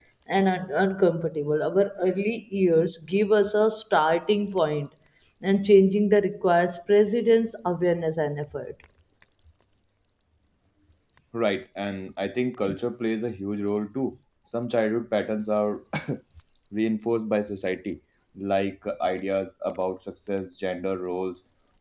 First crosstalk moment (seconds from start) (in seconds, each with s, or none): none